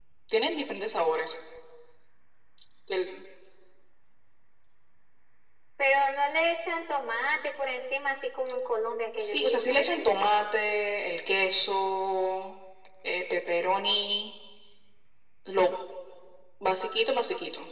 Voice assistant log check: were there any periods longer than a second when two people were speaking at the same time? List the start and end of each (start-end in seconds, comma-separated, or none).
9.2-10.4